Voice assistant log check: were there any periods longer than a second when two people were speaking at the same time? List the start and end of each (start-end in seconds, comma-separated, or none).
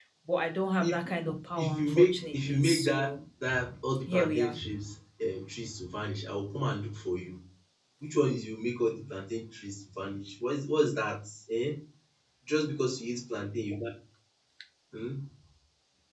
1.6-3.1